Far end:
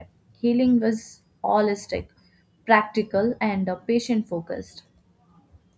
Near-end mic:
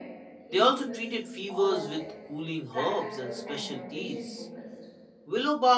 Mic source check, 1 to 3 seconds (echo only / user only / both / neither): both